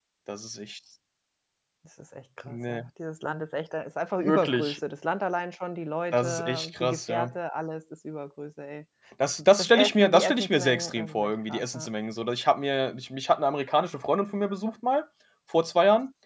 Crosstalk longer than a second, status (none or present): present